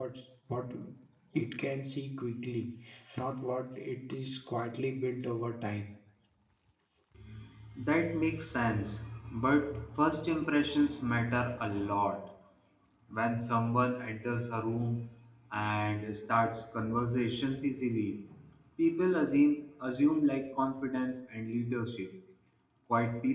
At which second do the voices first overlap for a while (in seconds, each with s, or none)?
none